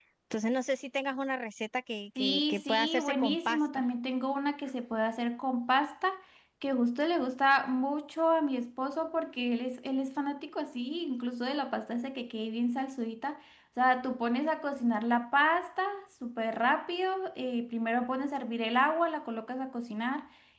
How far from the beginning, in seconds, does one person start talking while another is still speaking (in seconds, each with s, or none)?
2.2 s